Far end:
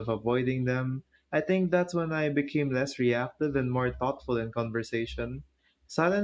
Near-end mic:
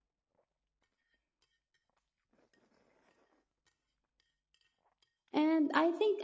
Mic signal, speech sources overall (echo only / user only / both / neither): user only